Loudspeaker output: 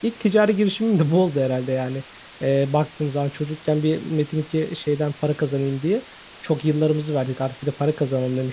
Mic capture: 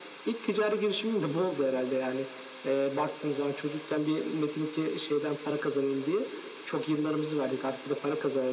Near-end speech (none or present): none